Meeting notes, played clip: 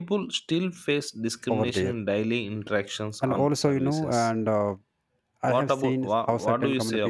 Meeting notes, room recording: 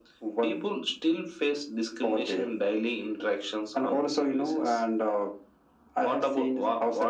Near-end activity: none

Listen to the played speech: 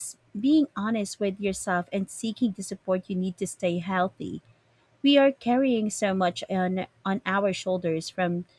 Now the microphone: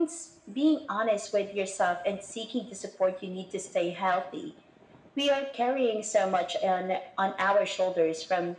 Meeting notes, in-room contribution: none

